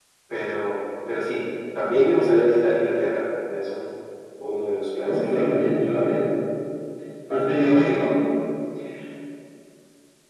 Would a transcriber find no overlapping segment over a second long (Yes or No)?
Yes